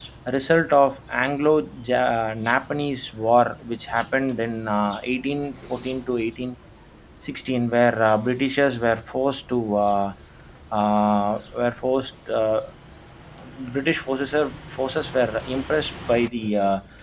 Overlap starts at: none

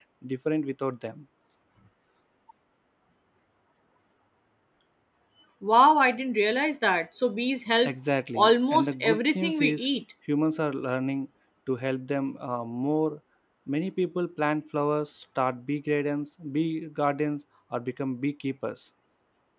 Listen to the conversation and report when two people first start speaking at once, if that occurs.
8 s

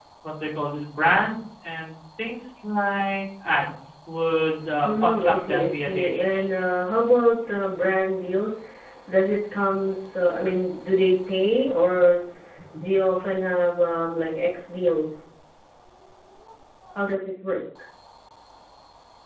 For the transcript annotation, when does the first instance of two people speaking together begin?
5 s

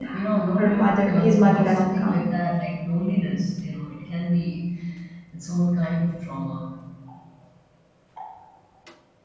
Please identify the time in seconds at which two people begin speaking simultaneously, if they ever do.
1 s

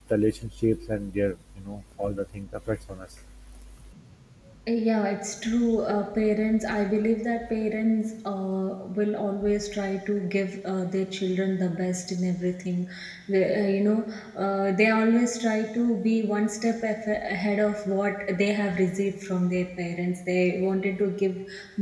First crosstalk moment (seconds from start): none

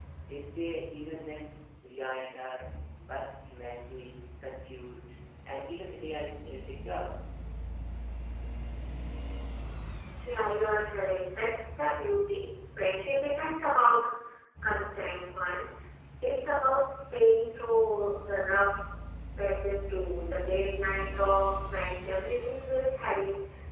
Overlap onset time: none

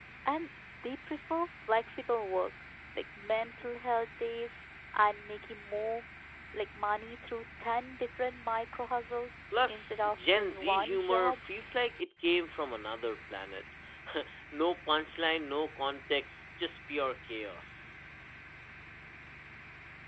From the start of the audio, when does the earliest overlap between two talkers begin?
10 s

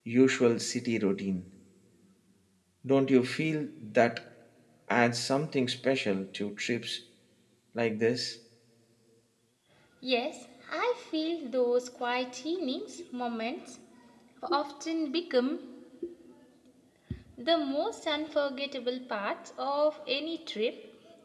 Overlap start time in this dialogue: none

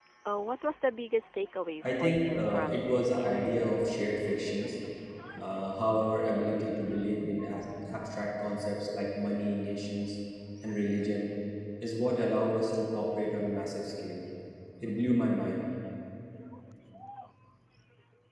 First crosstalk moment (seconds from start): 2 s

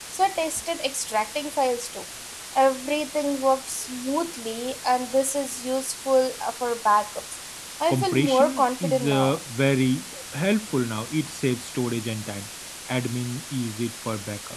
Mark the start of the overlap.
8 s

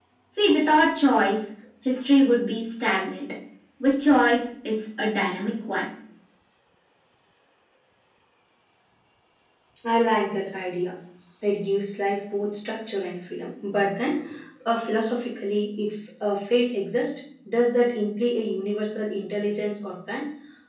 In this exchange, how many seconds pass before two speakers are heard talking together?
none

